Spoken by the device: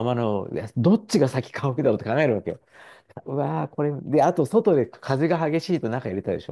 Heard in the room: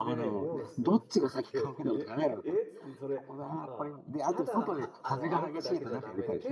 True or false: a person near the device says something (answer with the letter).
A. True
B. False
A